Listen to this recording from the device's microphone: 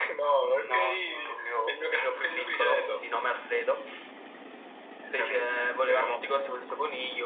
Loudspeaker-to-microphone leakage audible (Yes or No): Yes